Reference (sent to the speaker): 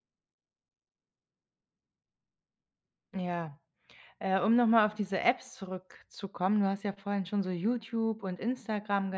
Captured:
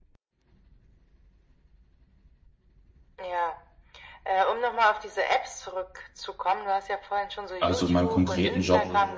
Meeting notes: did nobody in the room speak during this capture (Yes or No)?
No